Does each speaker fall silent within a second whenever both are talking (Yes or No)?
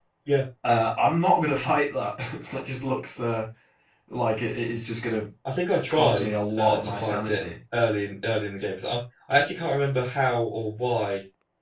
No